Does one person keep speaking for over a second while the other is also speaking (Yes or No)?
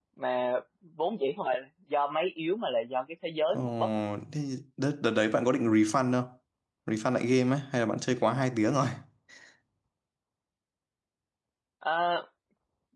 No